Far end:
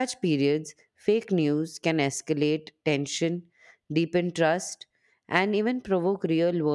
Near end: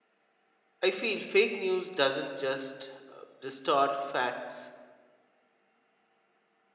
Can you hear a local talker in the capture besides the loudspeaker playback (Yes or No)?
Yes